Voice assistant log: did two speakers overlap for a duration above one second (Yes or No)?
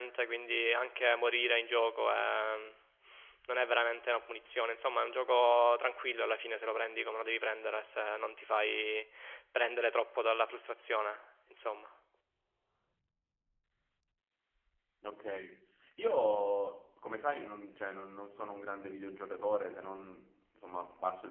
No